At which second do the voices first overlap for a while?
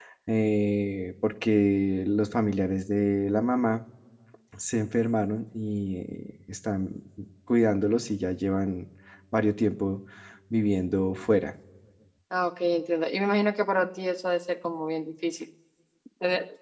none

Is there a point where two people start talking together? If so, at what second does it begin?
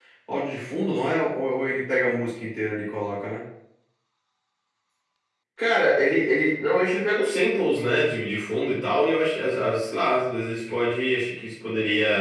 none

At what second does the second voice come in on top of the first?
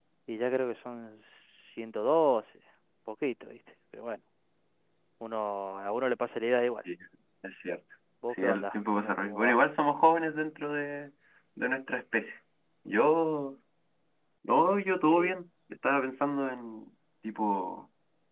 8.3 s

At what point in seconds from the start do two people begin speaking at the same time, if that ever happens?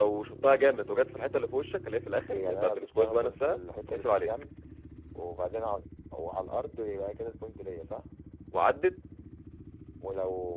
2.3 s

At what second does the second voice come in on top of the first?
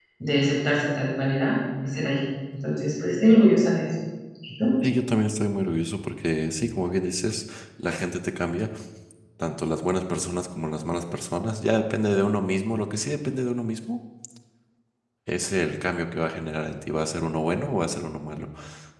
none

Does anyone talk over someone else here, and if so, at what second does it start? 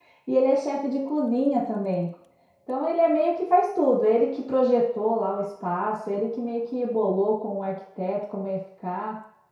none

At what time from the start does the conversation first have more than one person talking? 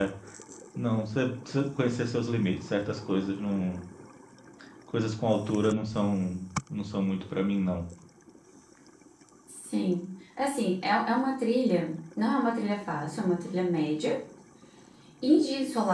none

